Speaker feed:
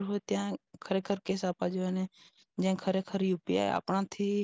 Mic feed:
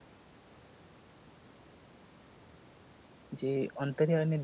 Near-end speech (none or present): present